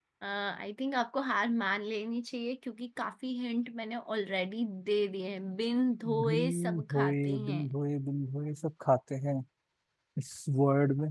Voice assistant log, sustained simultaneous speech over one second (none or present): present